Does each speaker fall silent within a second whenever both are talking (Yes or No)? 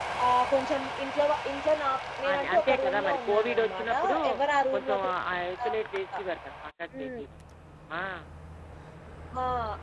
No